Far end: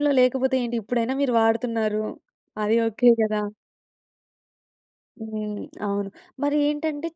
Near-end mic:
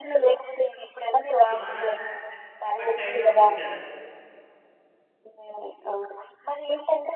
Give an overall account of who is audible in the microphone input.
both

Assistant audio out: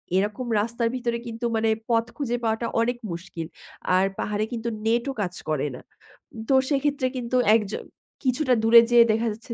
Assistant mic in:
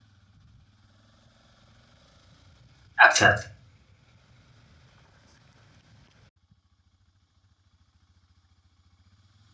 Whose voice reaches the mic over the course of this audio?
user only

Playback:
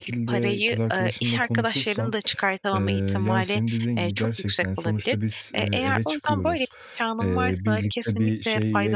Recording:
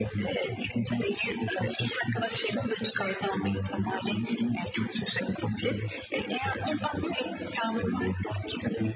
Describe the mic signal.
echo only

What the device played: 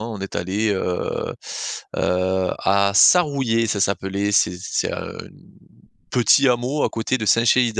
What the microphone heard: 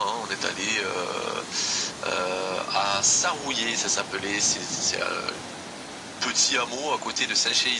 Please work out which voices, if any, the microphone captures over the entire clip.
echo only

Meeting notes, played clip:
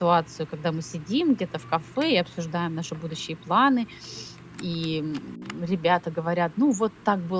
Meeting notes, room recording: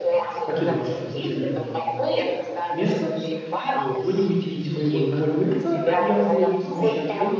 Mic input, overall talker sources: both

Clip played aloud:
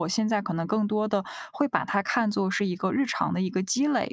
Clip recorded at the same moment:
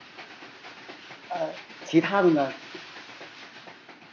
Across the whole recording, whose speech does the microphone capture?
user only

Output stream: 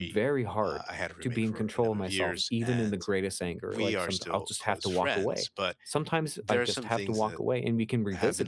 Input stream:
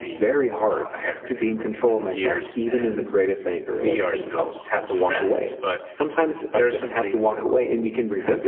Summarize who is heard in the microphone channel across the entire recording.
echo only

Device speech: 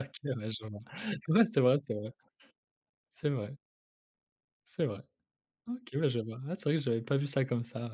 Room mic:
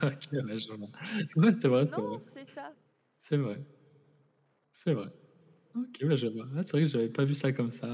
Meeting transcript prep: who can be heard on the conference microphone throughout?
both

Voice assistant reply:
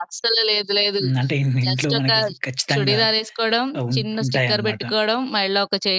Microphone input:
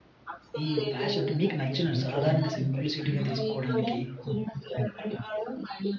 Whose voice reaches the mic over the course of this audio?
both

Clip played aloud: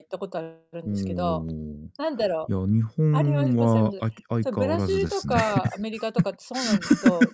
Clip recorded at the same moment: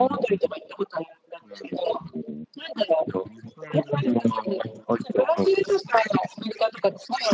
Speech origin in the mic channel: echo only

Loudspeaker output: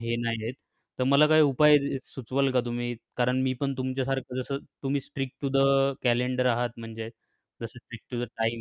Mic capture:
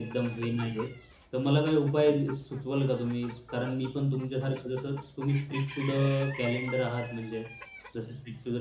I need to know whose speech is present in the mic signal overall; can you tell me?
echo only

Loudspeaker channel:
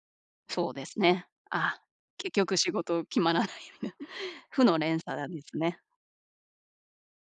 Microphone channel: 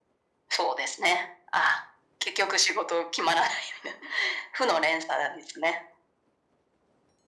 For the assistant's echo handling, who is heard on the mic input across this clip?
echo only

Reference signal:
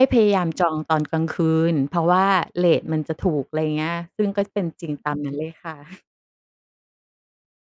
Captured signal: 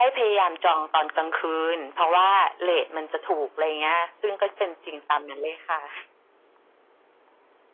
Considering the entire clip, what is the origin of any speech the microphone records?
echo only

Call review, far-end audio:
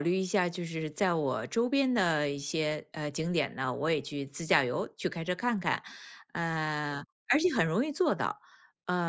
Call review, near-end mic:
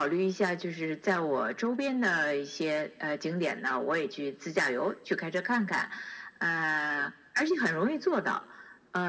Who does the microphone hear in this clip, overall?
echo only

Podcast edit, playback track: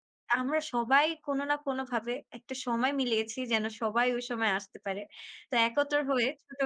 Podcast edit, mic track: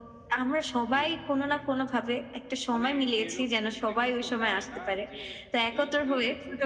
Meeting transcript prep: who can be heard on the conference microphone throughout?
both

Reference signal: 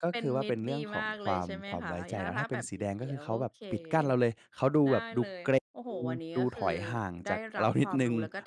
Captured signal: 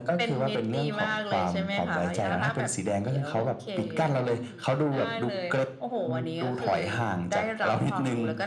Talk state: both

